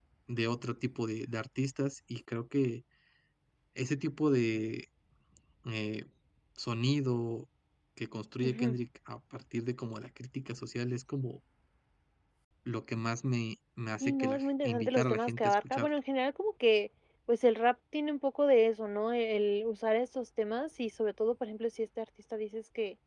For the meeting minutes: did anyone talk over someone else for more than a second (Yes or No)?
Yes